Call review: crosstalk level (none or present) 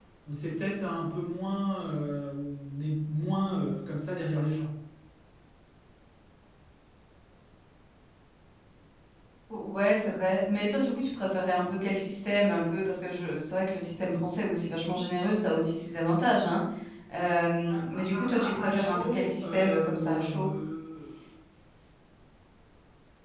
present